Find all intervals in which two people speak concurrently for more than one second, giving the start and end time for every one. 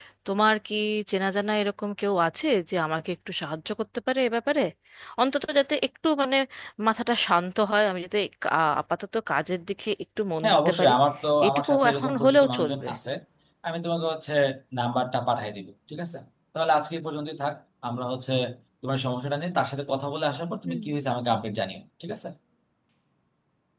11.5-12.9

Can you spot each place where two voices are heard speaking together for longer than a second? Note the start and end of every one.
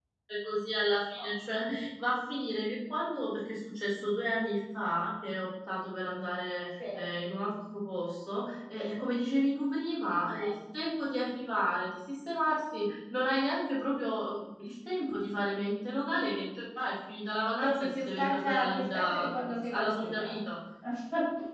17.6-20.3

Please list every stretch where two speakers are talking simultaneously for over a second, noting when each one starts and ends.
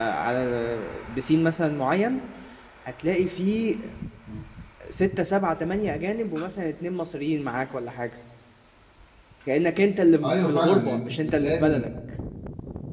10.2-11.9

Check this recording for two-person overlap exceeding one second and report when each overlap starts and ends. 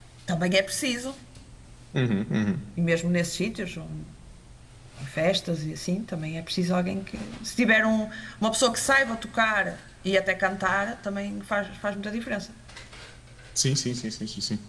none

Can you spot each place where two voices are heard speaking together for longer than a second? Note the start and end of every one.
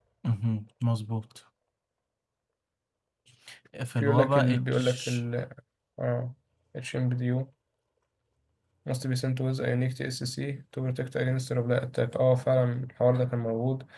4.0-5.2

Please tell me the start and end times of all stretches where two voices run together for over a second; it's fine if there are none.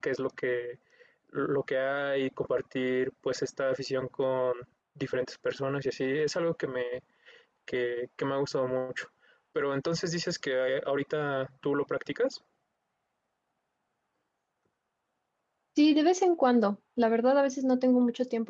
none

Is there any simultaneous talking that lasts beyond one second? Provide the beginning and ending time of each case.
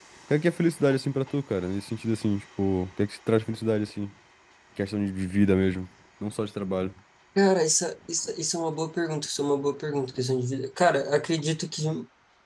none

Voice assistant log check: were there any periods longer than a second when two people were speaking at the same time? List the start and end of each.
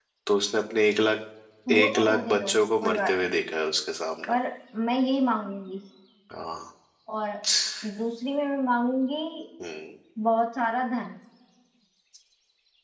1.8-3.3

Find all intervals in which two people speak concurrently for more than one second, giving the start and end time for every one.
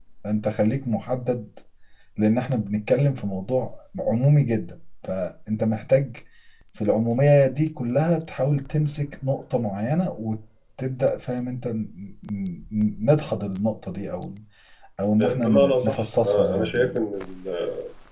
15.2-17.0

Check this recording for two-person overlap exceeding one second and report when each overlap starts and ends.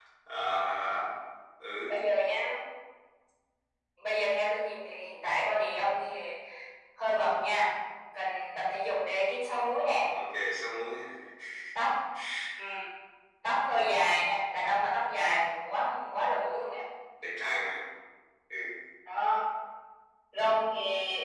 none

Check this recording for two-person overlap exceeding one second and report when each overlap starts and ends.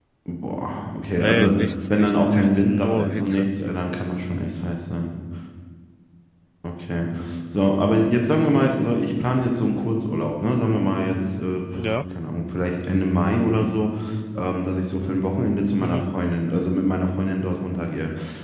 1.9-3.5

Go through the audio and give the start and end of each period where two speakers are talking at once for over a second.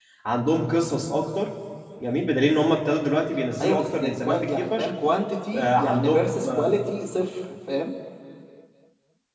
3.6-4.9, 5.5-6.8

